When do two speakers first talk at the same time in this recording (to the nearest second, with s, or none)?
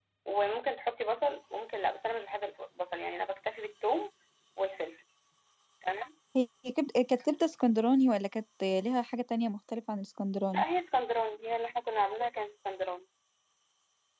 none